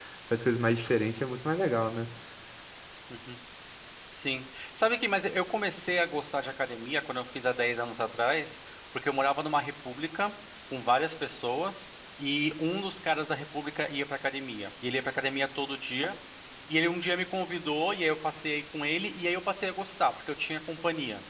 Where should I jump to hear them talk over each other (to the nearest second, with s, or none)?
none